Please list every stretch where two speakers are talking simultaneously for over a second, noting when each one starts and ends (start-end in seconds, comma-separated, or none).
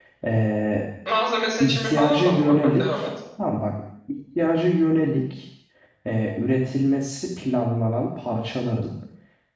1.6-3.1